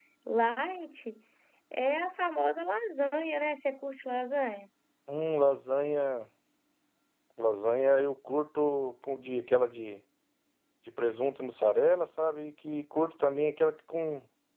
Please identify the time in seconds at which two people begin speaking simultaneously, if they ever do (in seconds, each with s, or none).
none